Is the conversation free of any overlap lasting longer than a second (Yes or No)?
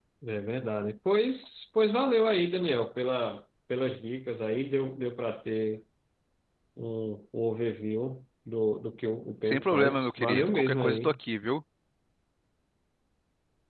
No